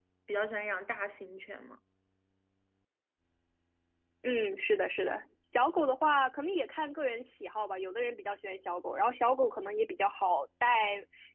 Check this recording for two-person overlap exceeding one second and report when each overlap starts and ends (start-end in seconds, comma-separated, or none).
none